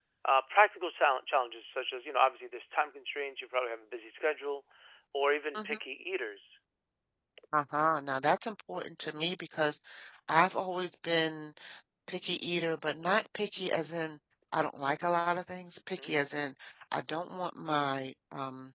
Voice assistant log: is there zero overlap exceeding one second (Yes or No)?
Yes